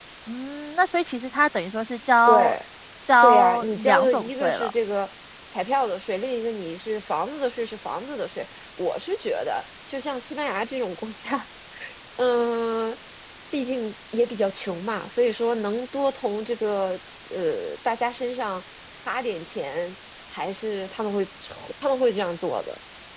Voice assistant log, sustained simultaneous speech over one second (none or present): present